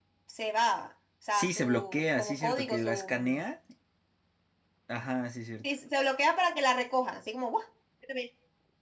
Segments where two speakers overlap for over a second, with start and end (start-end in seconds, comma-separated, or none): 1.3-3.5